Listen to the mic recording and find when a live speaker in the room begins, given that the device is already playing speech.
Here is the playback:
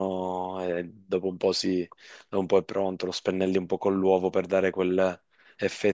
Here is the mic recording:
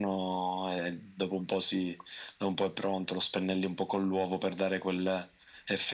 none

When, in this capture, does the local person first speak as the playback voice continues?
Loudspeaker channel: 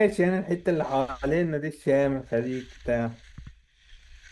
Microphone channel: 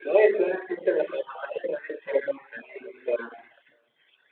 none

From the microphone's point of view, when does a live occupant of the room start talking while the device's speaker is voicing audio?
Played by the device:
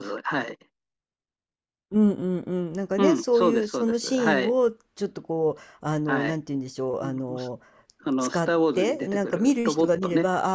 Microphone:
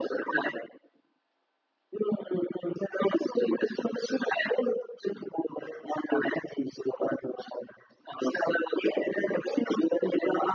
none

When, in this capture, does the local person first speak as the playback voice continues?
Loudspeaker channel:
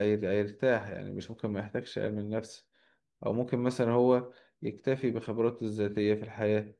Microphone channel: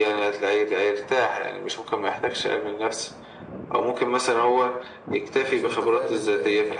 5.5 s

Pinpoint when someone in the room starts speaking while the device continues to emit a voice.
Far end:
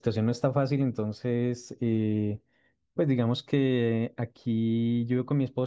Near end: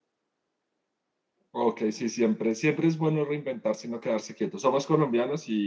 1.5 s

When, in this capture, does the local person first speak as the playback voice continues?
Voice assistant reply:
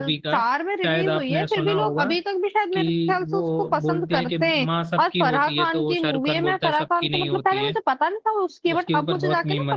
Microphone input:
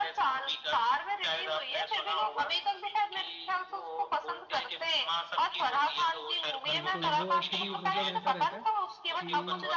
6.7 s

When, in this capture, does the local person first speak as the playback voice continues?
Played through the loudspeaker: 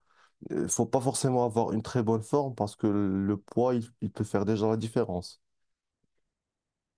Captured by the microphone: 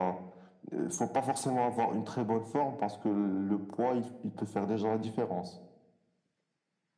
none

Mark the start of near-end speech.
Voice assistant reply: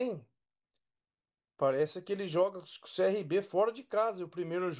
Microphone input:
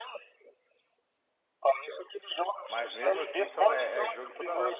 2.7 s

